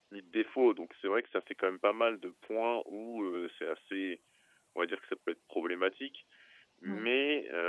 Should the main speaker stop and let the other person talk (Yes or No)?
No